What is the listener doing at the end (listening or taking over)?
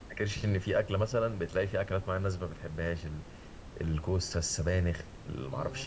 listening